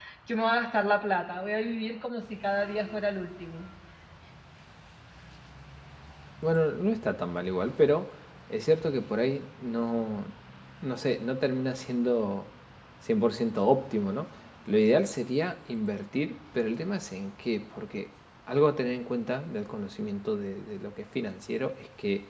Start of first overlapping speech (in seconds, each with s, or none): none